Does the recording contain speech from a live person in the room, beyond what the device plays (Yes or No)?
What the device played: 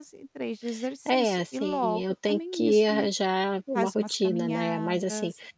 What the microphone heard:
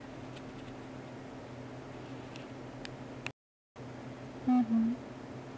Yes